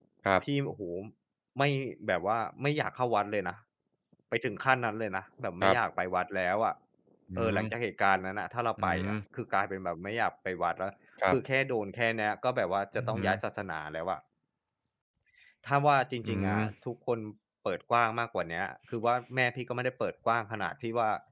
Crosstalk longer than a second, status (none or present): none